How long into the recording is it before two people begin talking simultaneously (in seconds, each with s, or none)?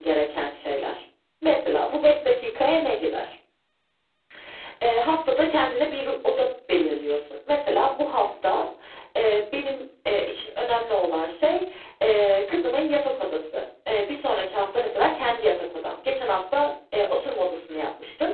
none